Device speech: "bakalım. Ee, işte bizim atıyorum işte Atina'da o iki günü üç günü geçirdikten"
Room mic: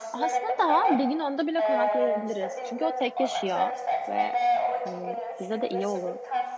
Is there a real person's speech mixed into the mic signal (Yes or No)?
Yes